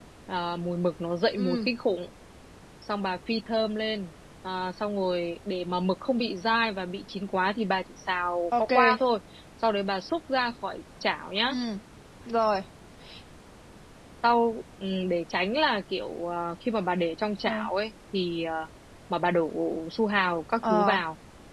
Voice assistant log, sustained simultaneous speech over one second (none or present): none